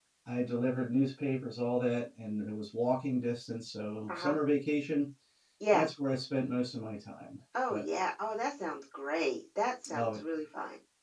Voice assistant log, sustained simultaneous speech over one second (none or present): none